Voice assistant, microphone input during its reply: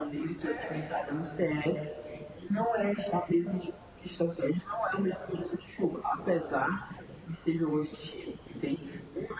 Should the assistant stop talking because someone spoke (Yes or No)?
Yes